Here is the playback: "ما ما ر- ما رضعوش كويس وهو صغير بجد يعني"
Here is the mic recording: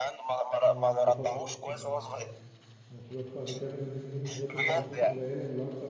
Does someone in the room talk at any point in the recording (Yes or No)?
Yes